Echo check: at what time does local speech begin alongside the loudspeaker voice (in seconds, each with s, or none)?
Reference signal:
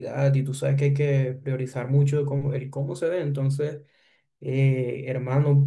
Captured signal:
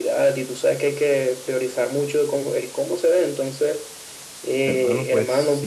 4.6 s